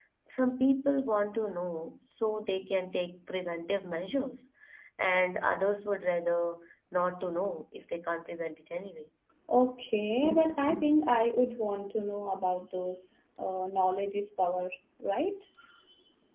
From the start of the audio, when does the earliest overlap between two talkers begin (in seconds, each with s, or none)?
none